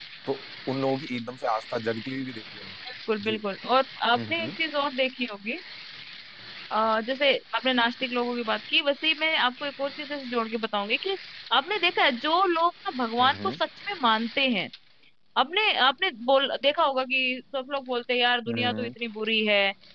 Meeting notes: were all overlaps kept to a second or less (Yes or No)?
Yes